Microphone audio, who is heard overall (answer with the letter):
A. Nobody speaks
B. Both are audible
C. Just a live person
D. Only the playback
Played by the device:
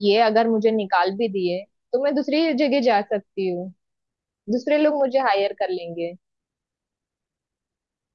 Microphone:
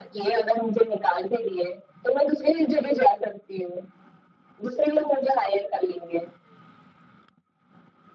D